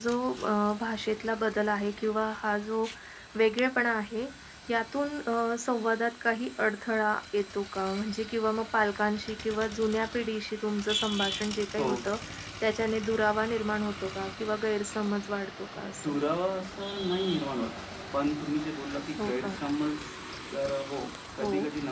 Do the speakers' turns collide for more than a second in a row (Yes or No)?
No